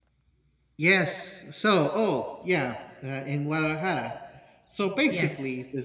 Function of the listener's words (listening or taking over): listening